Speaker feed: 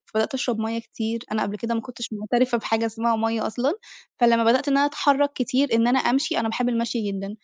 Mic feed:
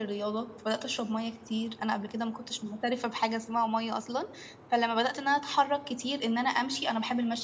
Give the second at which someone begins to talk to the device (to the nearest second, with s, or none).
none